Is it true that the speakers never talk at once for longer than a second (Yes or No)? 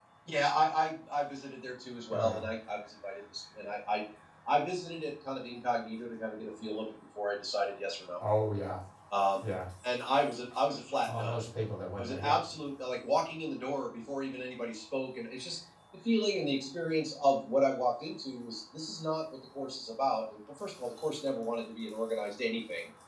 Yes